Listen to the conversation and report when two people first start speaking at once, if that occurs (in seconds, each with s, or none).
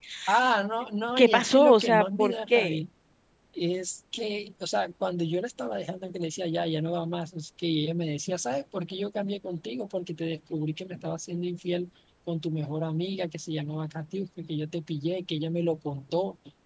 1.2 s